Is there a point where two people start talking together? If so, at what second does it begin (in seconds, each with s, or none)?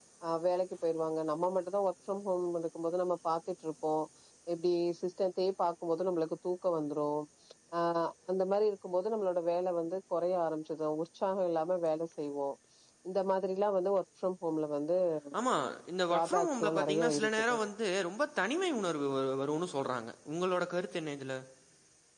16.1 s